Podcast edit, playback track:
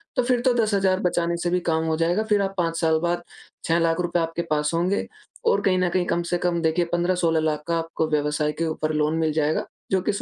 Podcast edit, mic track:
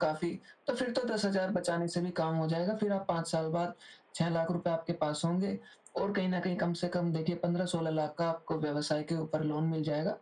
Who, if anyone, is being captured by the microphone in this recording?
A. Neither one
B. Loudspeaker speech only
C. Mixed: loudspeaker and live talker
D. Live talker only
B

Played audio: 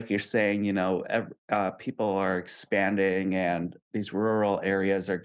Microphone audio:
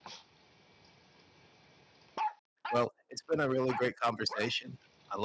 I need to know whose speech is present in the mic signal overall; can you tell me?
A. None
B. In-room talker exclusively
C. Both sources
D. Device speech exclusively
B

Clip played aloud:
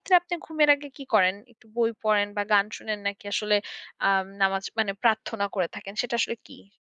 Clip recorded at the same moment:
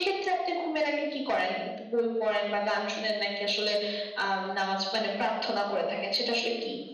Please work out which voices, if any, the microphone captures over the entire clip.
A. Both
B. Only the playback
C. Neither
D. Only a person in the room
B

